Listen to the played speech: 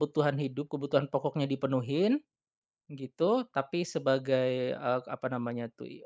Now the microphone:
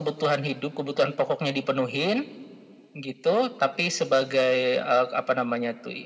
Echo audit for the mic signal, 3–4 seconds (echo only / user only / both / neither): echo only